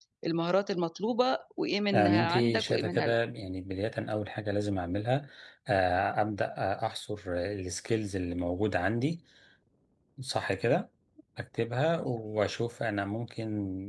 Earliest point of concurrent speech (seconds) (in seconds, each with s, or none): 1.9 s